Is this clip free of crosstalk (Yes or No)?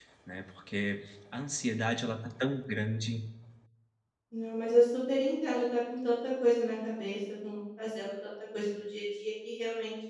Yes